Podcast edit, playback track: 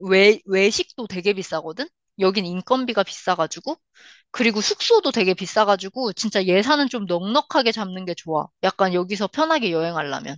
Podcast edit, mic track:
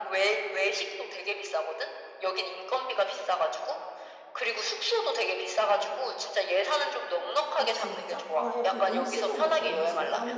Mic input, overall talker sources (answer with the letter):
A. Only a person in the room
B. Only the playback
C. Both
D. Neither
C